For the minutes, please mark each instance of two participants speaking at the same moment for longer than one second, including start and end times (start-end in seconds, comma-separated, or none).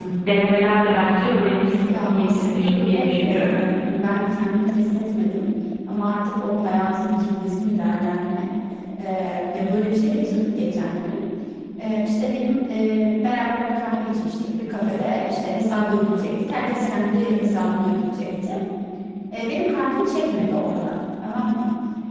1.9-3.5